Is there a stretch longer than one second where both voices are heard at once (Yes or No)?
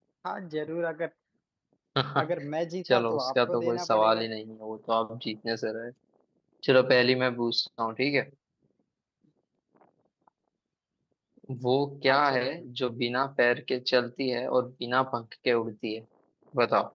Yes